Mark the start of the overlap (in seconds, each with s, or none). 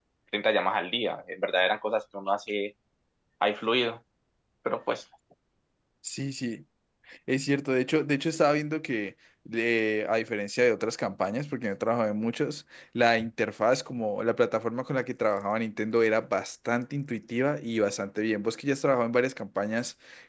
none